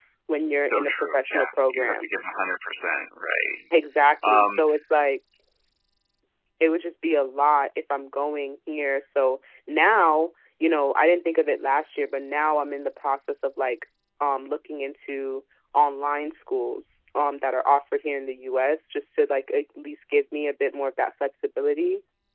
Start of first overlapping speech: 0.7 s

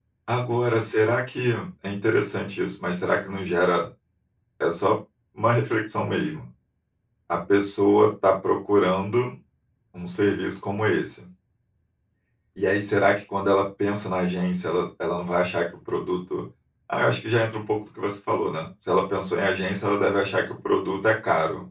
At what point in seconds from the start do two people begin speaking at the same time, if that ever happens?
none

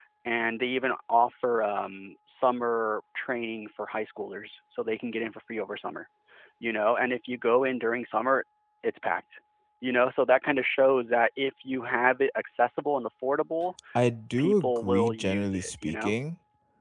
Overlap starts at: 14.4 s

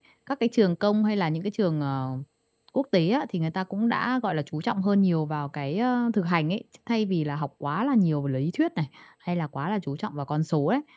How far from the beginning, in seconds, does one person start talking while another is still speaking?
none

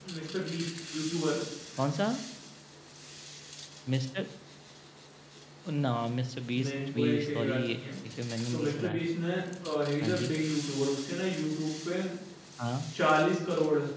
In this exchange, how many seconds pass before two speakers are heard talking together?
6.6 s

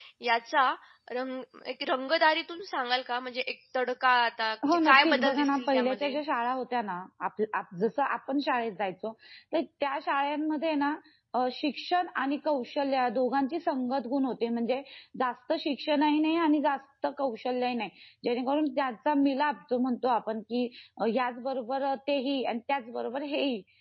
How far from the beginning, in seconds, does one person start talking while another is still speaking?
4.6 s

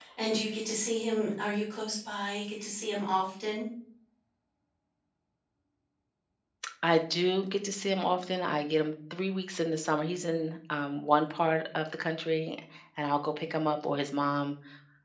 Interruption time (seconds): none

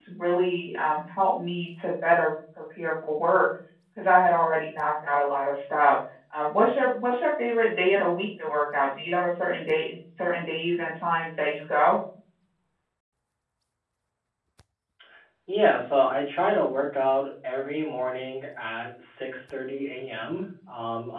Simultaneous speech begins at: none

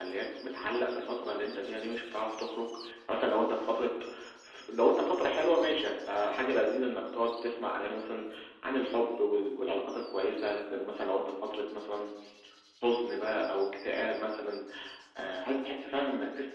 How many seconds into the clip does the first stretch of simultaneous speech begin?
none

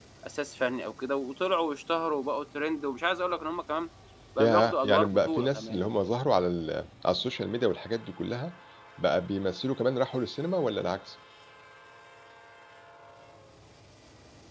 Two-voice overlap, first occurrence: 4.4 s

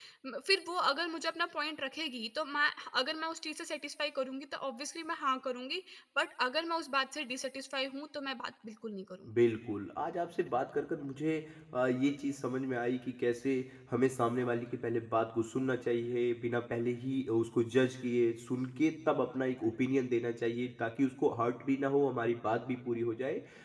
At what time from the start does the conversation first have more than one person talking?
none

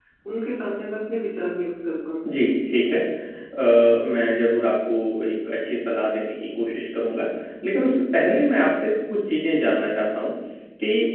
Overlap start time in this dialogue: none

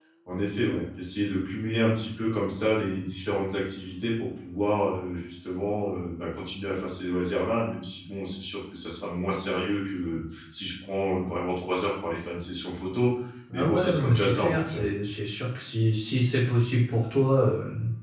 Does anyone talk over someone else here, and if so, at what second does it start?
13.6 s

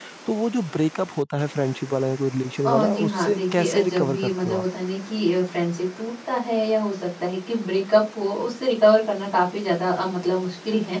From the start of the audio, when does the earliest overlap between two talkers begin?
2.6 s

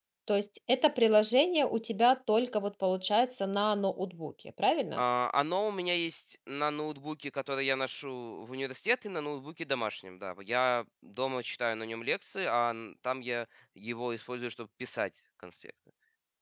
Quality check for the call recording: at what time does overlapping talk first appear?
none

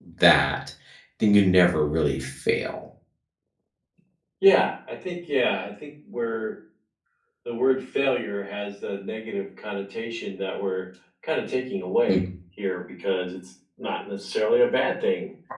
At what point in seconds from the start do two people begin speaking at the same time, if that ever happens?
none

